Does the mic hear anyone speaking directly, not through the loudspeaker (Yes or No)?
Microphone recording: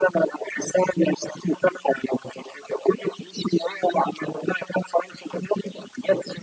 No